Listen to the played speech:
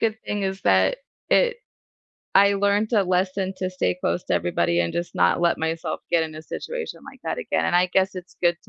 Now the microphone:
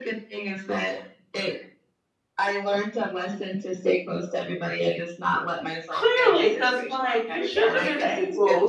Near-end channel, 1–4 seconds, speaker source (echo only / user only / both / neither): echo only